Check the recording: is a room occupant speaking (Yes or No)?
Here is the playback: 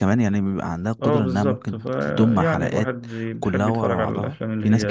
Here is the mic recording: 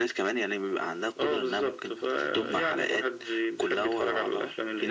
No